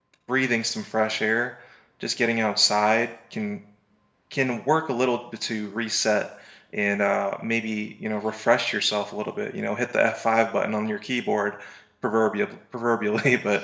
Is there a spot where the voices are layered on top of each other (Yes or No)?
No